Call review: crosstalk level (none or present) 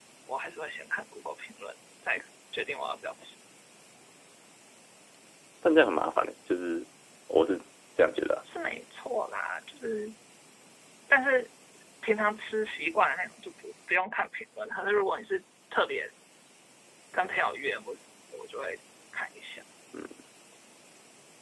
none